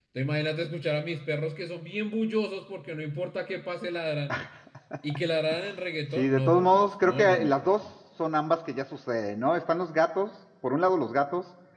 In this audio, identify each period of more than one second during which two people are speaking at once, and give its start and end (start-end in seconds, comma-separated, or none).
6.2-7.8